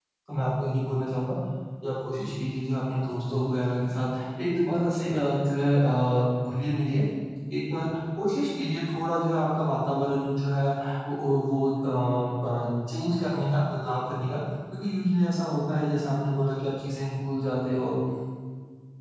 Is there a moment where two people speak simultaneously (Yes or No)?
No